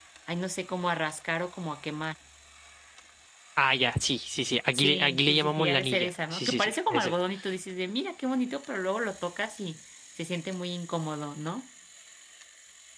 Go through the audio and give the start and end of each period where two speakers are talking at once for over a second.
4.7-7.1

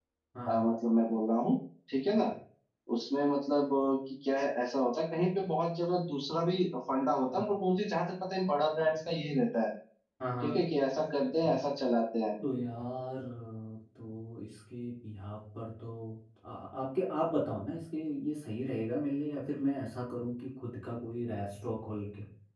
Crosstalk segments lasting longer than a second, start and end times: none

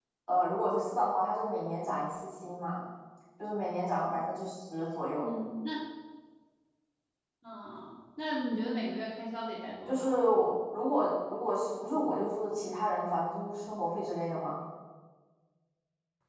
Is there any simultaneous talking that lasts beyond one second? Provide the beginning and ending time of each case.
none

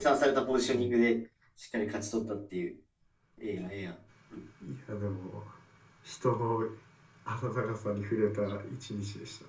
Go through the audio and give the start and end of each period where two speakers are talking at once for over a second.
none

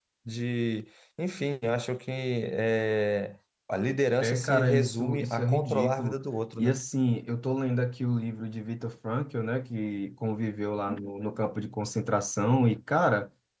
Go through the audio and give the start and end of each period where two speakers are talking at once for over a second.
4.2-6.2

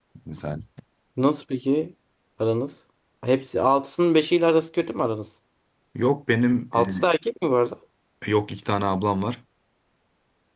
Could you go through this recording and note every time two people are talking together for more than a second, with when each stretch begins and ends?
none

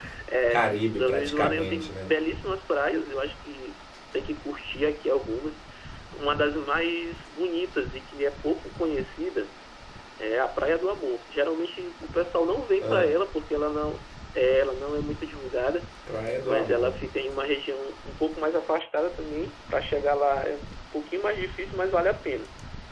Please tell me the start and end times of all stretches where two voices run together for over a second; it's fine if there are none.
0.5-2.1

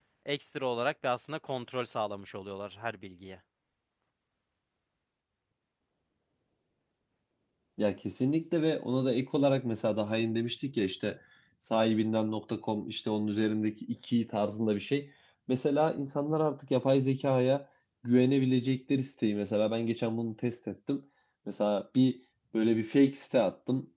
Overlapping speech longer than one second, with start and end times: none

